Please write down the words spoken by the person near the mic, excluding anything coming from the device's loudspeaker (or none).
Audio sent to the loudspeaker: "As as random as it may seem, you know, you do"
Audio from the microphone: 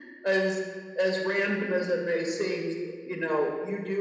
none